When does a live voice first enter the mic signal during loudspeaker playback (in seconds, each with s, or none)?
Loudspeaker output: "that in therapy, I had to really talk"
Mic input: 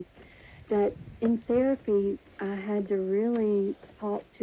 none